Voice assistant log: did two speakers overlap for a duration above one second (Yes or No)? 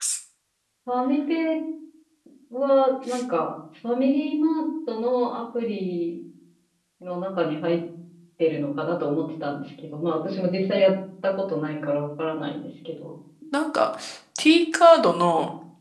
No